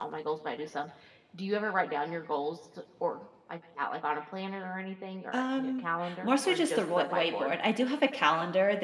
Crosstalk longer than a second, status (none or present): present